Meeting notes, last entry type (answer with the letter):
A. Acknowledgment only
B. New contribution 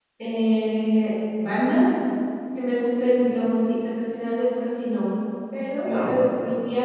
A